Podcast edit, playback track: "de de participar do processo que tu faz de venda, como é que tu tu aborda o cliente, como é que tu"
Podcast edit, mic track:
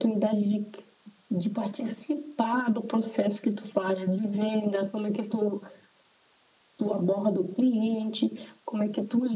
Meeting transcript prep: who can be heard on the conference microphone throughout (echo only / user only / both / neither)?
echo only